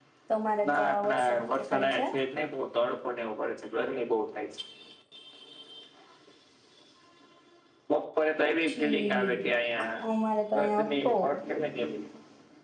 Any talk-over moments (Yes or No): Yes